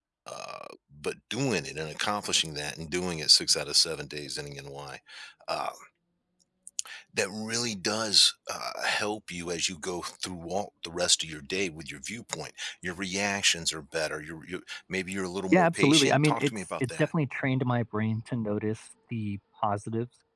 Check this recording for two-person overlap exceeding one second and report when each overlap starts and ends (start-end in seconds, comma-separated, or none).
15.5-17.1